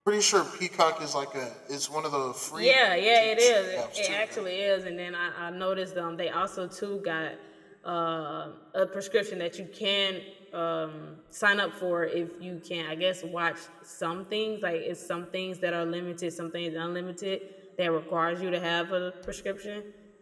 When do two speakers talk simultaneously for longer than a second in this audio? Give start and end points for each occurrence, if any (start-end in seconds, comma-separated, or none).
3.1-4.4